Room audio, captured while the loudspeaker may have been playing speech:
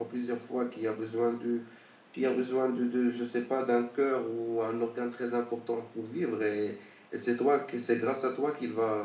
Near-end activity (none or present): present